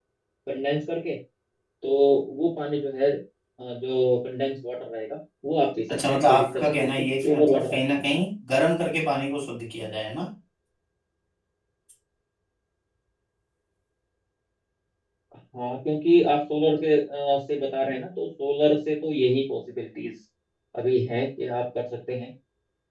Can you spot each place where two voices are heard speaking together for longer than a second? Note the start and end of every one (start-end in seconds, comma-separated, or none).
6.1-8.1